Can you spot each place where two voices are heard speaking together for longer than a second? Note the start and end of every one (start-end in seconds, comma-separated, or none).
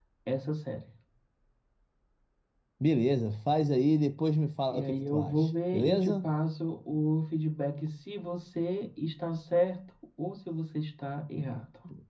4.7-6.2